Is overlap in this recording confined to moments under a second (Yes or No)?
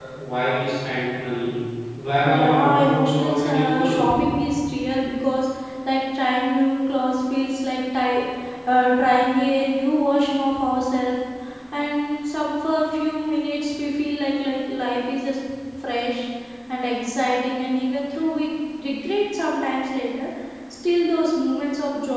No